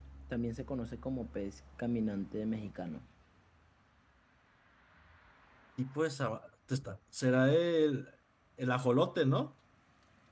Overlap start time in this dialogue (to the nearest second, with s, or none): none